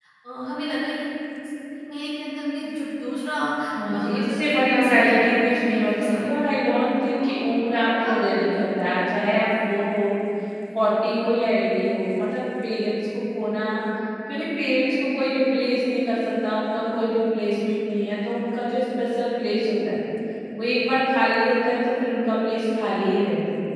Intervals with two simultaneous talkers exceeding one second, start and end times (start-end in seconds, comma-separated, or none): 3.9-6.5